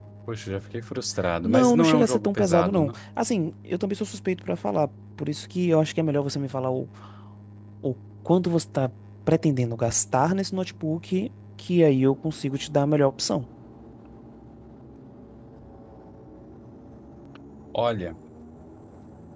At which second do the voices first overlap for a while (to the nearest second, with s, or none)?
1 s